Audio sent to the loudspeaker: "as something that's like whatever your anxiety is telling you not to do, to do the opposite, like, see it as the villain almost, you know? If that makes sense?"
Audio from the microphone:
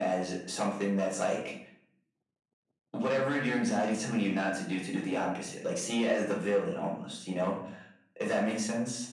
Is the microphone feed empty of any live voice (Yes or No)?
Yes